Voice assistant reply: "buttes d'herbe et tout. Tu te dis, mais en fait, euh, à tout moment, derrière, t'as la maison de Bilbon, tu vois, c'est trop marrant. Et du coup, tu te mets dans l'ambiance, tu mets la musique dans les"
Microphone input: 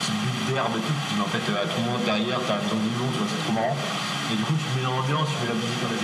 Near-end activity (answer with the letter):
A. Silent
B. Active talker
B